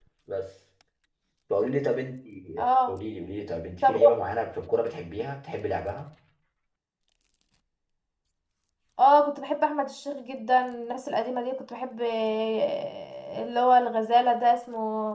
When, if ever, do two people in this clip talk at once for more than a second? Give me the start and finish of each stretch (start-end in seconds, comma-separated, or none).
none